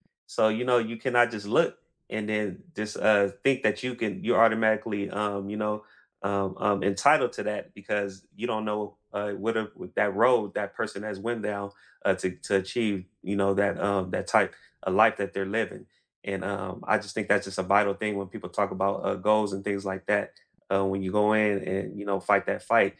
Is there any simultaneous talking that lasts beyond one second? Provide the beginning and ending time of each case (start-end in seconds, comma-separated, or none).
none